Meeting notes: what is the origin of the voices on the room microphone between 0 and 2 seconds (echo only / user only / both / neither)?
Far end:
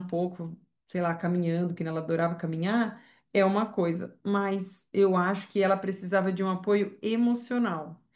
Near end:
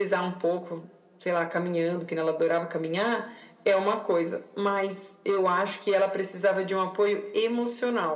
echo only